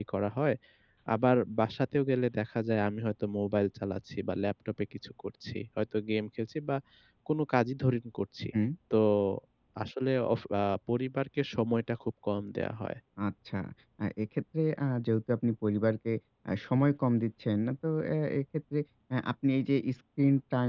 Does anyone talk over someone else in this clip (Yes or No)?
No